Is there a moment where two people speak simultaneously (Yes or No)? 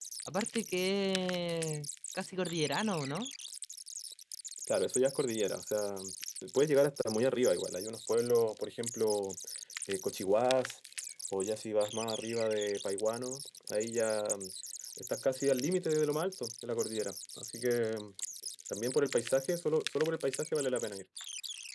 No